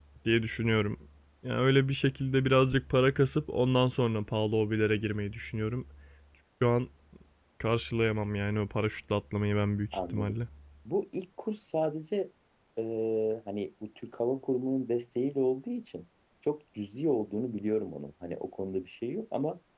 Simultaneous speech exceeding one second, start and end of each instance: none

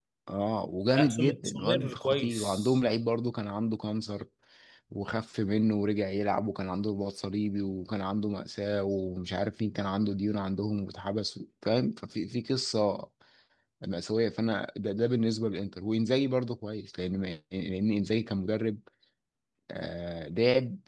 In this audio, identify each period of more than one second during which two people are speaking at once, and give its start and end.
1.0-2.5

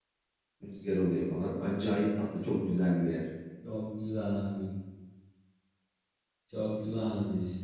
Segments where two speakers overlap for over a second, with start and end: none

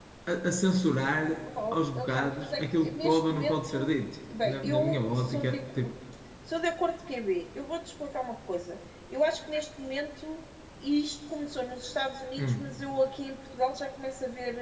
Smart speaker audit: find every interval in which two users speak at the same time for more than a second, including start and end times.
1.7-3.9, 4.4-5.9

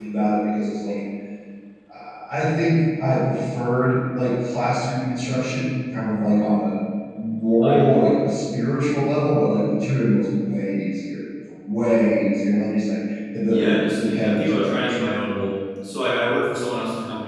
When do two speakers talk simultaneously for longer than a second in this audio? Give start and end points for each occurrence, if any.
13.5-15.0

